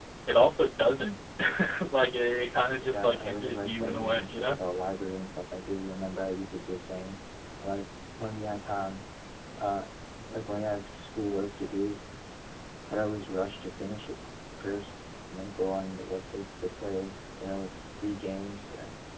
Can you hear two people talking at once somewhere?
Yes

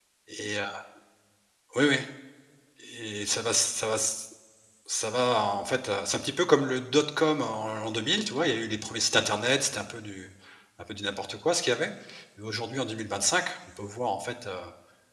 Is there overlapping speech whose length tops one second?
No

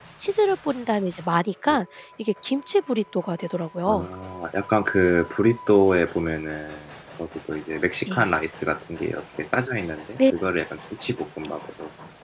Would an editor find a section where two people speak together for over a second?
No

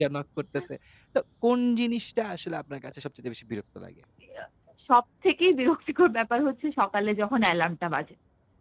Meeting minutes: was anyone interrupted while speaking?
No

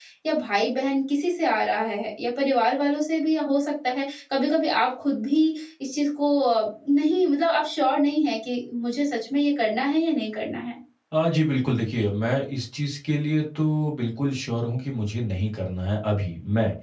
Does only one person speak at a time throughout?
Yes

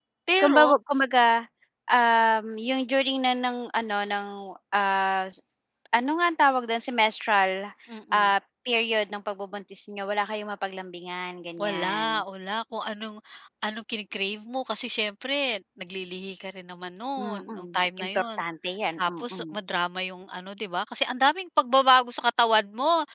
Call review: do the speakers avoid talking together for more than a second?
No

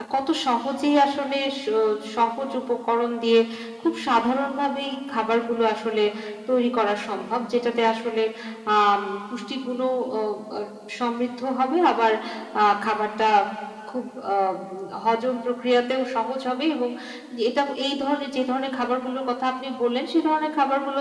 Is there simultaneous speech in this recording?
No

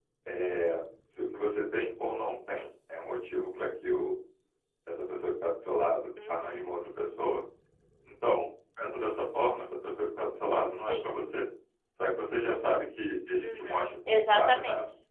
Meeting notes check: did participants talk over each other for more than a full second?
Yes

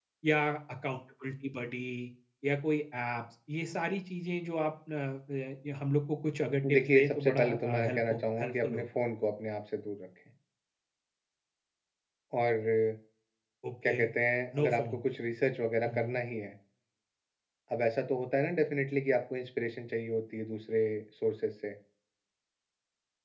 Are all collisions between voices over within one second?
No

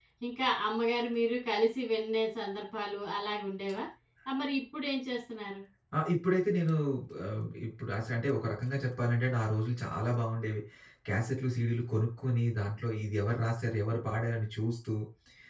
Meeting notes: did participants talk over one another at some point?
No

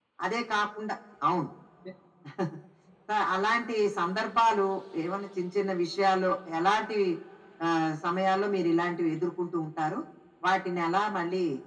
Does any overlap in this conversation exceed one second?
No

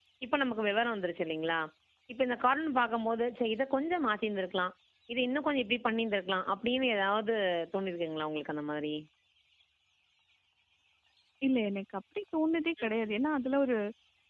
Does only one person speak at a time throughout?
Yes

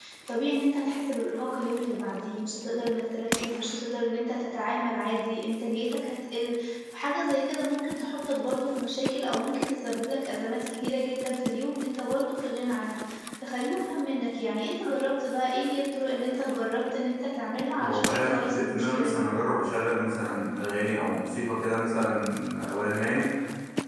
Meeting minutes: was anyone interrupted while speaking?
Yes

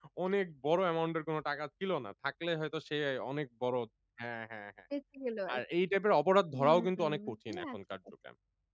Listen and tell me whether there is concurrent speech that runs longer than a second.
Yes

